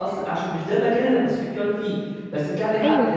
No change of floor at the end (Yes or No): Yes